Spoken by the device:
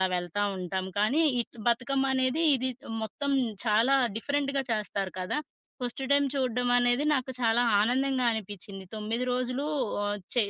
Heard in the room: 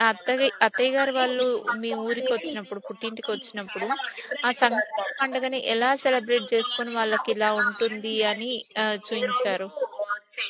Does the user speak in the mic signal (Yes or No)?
Yes